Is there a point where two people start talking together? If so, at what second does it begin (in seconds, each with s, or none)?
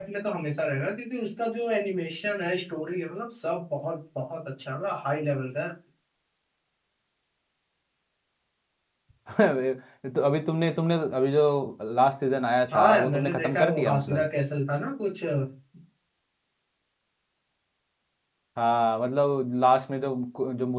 12.7 s